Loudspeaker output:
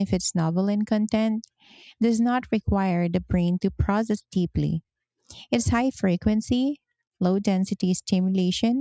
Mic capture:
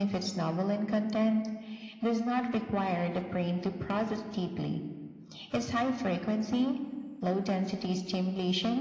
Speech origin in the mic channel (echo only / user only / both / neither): echo only